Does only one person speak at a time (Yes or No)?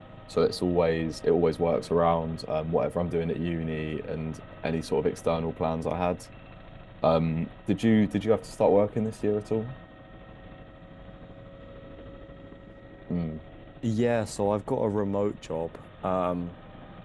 Yes